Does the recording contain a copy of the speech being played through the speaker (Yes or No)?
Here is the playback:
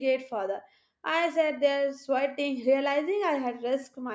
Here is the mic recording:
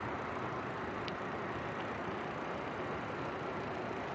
No